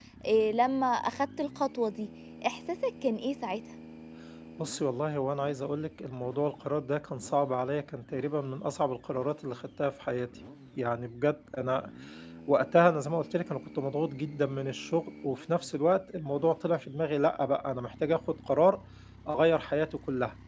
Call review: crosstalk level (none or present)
none